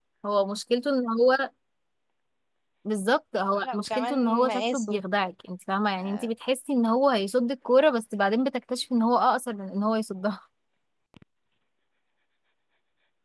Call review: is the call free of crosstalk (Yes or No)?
No